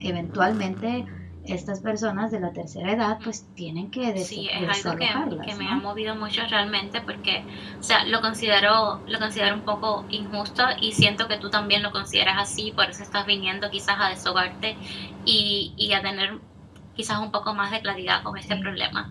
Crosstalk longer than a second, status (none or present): present